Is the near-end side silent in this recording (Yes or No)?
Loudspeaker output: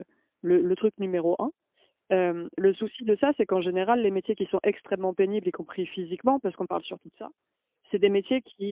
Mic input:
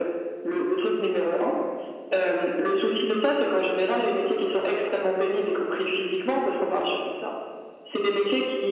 Yes